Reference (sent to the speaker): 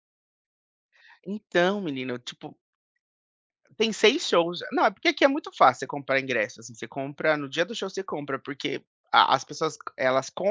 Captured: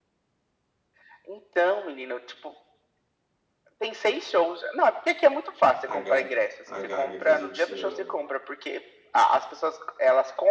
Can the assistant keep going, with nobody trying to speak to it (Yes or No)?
No